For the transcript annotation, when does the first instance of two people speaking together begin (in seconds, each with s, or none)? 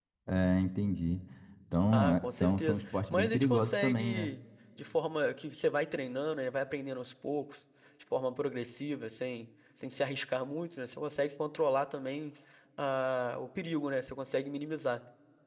1.9 s